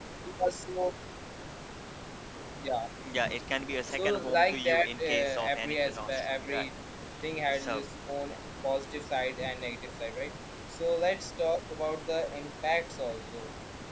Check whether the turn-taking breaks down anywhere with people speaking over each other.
Yes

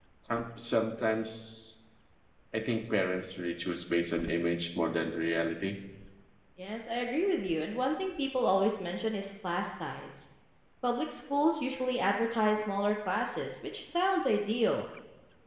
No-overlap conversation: Yes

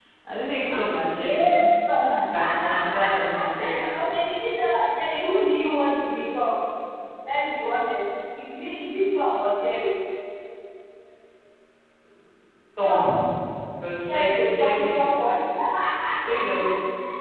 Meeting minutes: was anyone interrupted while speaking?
Yes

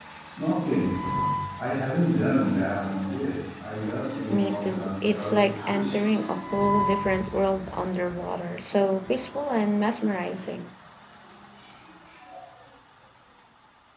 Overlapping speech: Yes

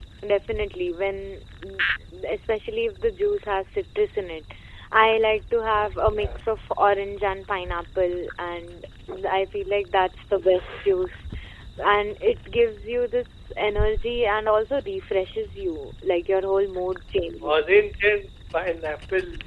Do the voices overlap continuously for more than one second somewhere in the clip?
No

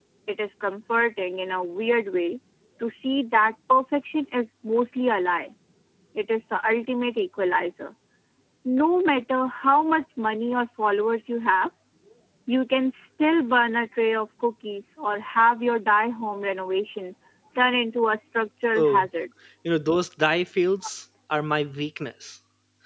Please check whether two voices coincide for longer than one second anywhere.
No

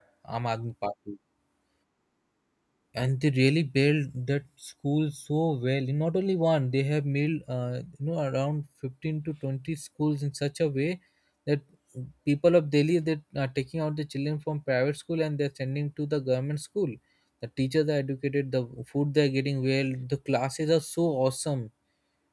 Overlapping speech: No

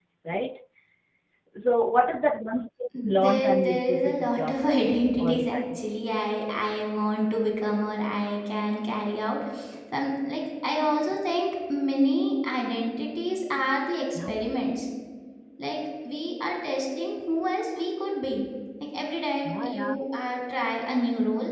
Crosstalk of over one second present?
Yes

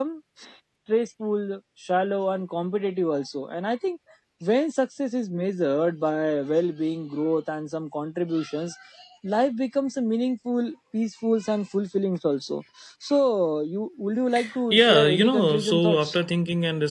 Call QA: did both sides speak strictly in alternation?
No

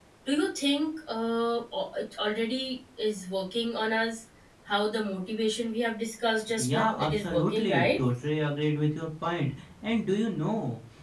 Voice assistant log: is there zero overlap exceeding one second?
No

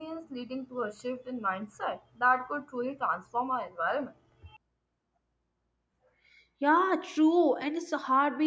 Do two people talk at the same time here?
No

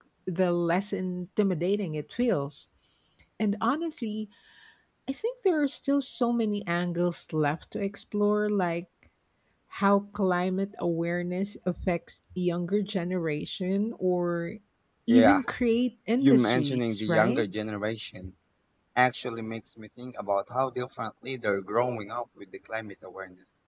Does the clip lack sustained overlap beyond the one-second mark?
No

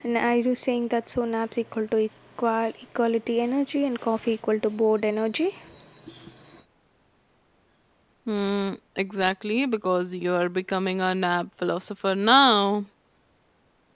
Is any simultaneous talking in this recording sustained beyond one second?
No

